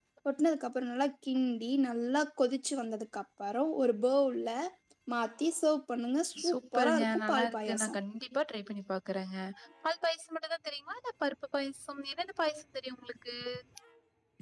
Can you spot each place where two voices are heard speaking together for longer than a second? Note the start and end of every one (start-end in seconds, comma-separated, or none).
6.5-8.0